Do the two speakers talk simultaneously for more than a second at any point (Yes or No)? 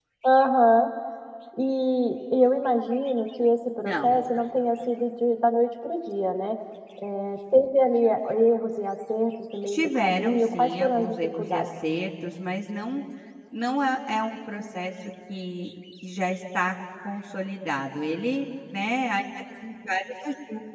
Yes